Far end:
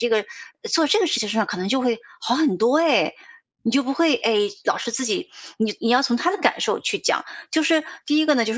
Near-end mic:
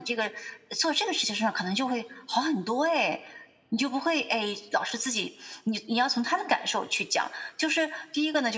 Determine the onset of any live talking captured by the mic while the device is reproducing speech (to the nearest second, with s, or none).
none